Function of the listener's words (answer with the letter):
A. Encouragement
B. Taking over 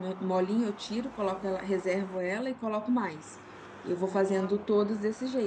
A